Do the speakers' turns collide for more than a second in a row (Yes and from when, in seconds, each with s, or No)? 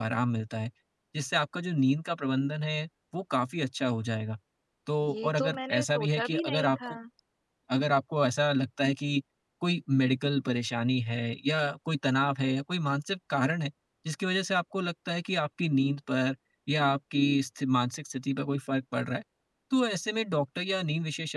Yes, from 5.1 s